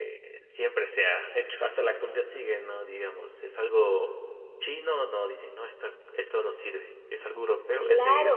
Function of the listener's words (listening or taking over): taking over